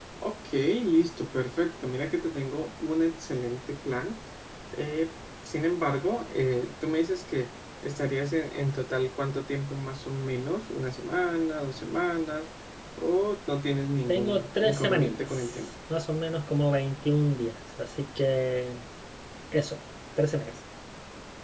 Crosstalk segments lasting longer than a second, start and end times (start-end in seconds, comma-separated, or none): 14.1-15.6